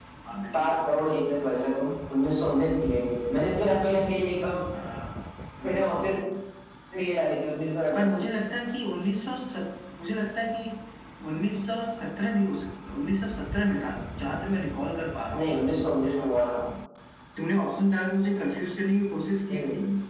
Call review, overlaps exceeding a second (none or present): none